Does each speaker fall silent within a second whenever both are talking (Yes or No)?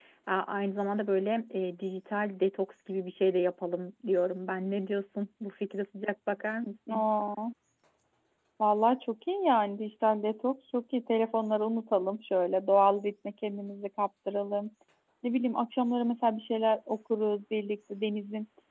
Yes